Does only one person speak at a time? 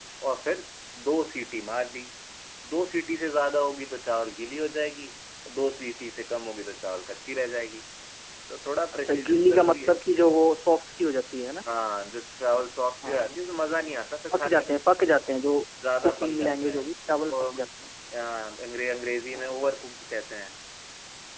No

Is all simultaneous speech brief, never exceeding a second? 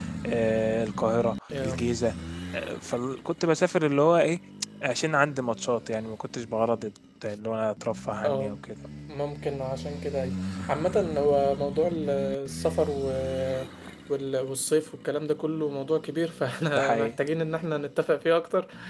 Yes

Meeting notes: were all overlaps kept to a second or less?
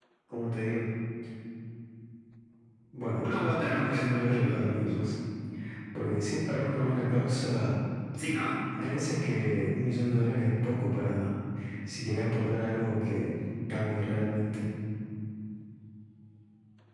No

